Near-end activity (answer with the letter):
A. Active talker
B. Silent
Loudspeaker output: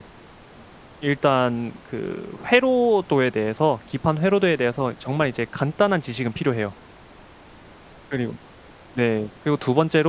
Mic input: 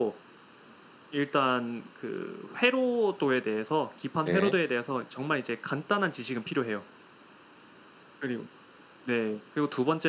A